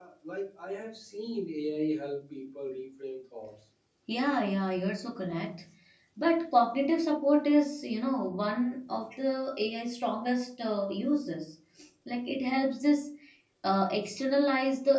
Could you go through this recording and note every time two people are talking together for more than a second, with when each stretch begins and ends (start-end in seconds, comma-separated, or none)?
none